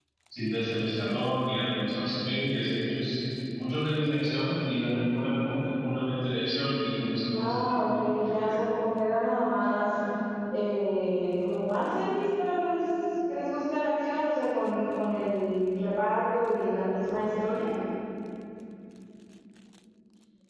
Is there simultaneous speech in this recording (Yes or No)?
Yes